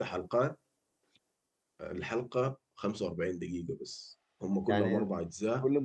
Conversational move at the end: taking over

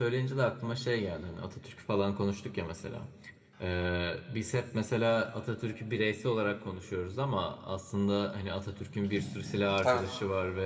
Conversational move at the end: listening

